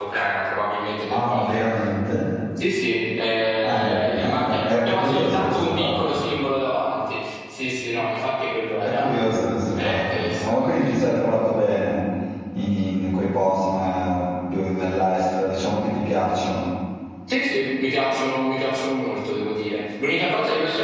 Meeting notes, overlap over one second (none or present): present